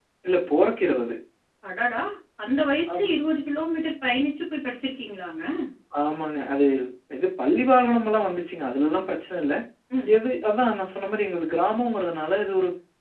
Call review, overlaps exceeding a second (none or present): none